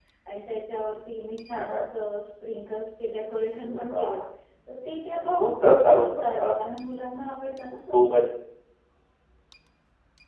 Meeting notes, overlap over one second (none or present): present